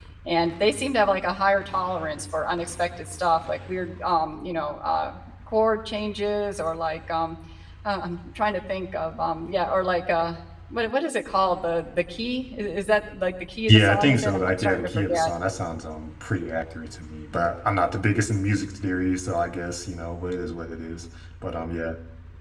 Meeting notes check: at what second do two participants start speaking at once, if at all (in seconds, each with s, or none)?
13.7 s